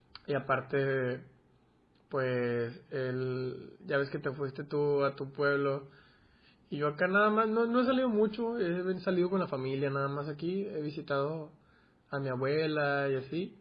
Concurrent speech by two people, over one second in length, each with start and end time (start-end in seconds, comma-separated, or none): none